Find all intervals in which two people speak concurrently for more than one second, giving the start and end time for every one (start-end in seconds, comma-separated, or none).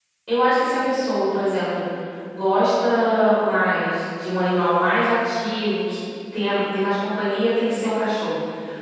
none